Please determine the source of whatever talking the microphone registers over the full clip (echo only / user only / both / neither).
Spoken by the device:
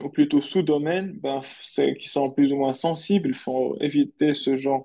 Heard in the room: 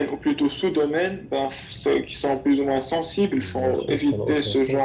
both